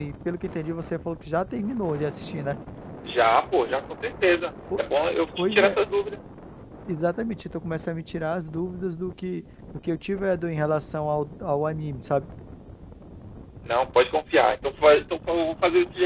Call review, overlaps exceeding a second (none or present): none